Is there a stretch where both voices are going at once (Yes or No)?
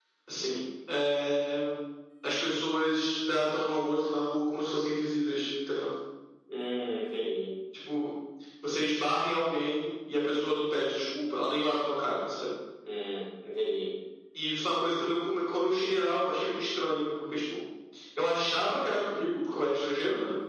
No